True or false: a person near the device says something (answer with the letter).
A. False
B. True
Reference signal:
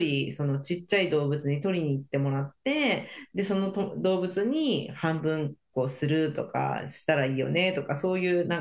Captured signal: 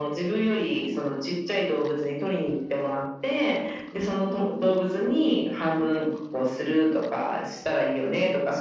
A